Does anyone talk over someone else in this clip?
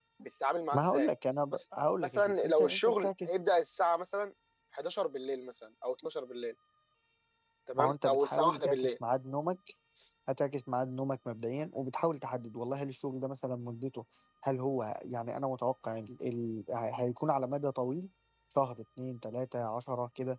Yes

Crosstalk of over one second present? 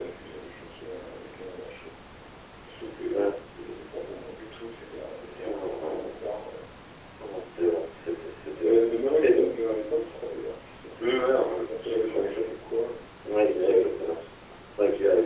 Yes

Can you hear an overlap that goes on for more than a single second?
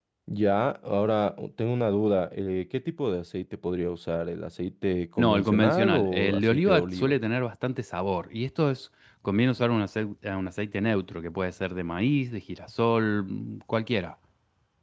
Yes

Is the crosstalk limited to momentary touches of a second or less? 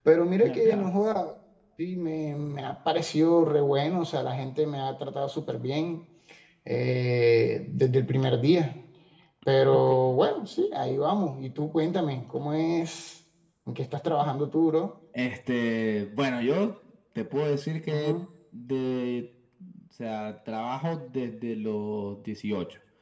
Yes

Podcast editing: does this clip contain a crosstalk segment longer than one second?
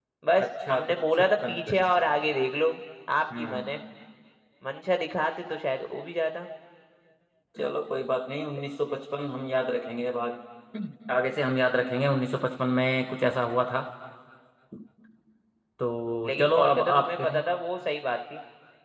Yes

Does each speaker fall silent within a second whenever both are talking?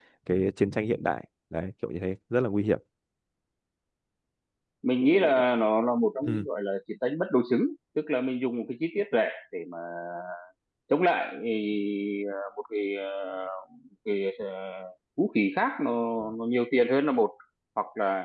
Yes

